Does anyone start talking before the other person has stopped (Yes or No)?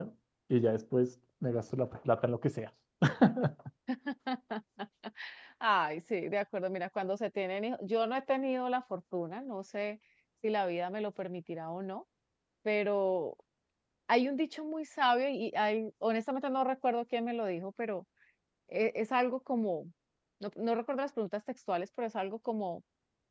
No